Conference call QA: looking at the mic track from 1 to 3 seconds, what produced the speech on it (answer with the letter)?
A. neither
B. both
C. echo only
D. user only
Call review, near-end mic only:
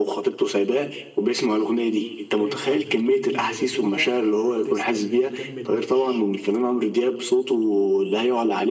B